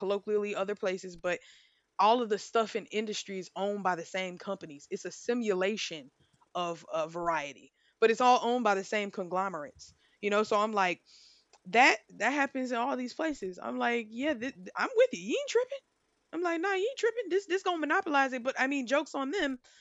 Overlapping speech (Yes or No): No